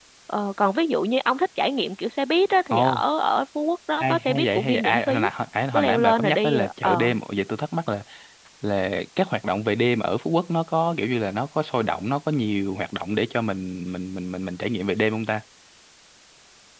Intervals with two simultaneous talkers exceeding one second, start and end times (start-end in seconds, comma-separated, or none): 4.0-5.3, 5.7-7.1